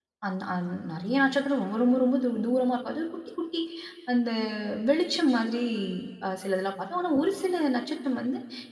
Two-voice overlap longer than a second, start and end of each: none

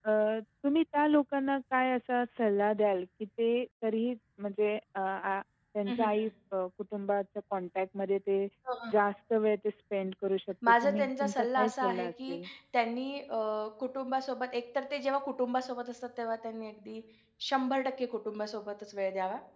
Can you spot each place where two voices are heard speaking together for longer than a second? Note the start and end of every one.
10.7-12.4

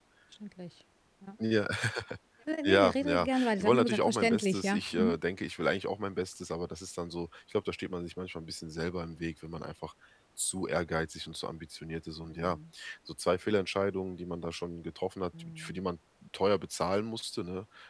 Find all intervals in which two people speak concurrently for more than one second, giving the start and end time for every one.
2.6-5.2

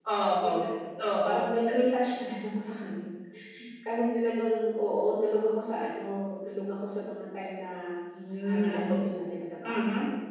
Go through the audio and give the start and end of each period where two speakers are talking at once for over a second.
none

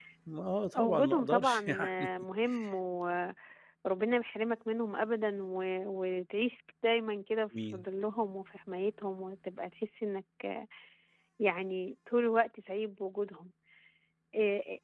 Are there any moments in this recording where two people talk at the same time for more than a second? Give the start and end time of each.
0.8-2.1

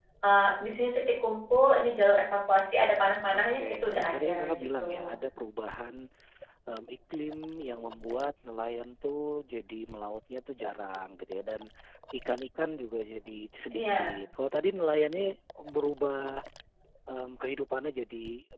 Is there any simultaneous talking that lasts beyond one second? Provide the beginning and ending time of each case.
3.3-5.2

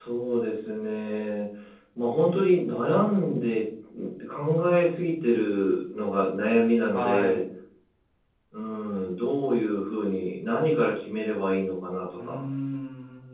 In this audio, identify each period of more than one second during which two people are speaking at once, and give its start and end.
none

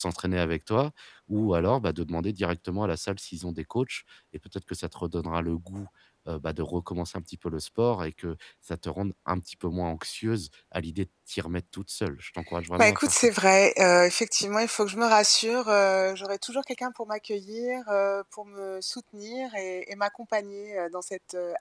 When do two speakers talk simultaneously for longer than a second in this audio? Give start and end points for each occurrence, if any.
none

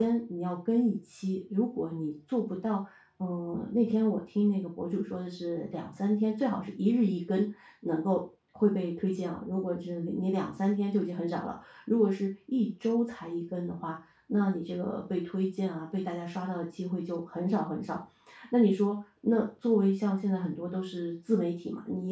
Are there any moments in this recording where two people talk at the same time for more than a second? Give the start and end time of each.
none

